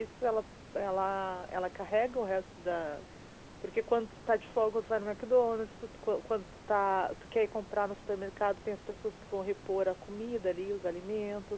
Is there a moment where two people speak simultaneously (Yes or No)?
No